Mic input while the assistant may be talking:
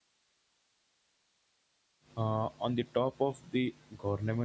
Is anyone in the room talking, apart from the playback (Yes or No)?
Yes